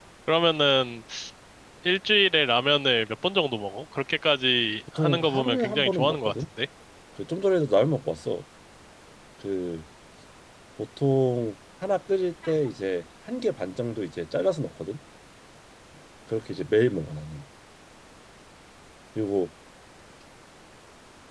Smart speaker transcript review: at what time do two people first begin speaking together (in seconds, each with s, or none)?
5.0 s